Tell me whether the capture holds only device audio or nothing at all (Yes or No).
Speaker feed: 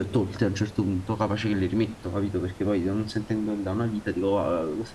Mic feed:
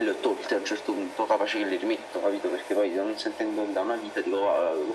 Yes